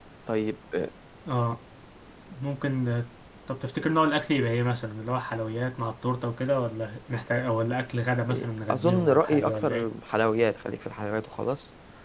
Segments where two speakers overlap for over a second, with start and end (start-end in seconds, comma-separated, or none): 8.3-9.9